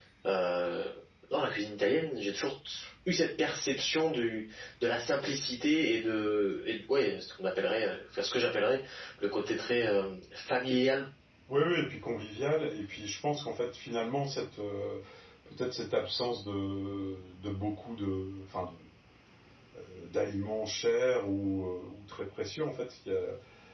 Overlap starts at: none

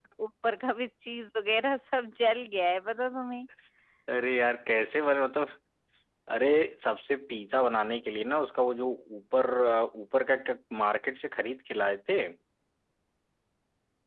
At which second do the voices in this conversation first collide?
none

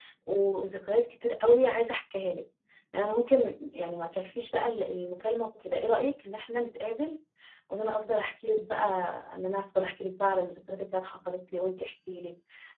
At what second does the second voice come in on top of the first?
none

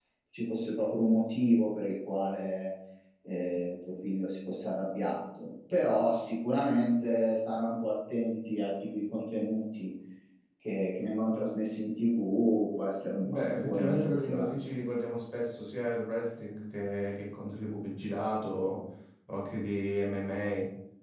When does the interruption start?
13.2 s

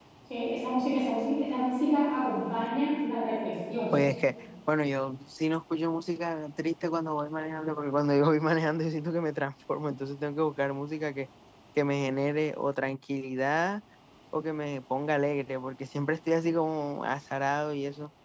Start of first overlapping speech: none

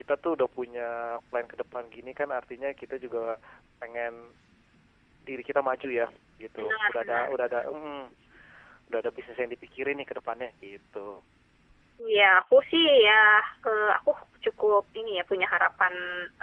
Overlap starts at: 6.6 s

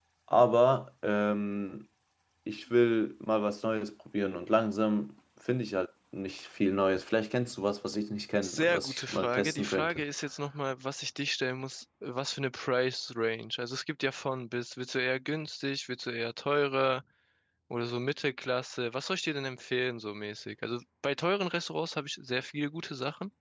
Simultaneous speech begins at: 8.4 s

